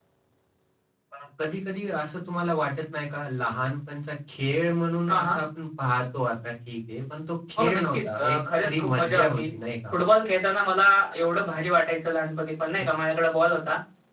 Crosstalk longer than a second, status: present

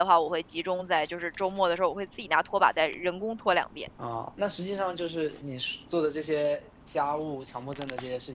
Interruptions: none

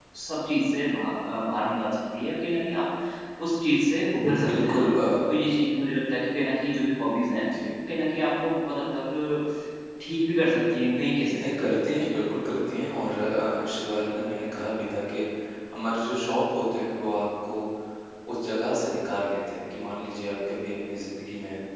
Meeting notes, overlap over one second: none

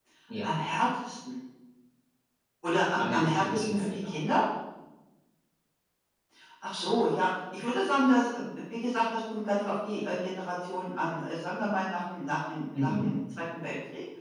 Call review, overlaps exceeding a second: present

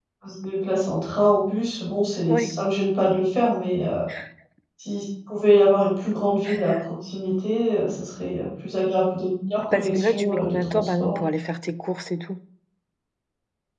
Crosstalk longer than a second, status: present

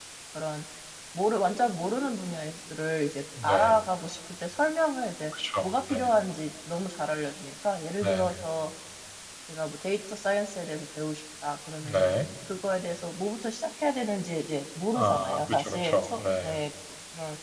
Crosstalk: present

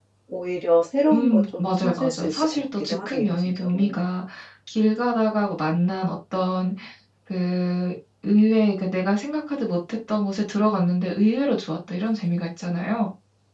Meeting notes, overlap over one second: present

